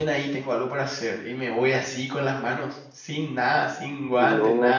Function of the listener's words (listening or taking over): listening